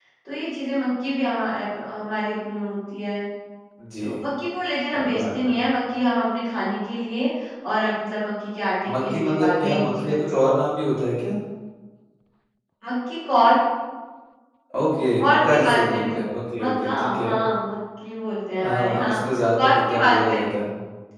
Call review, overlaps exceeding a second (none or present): present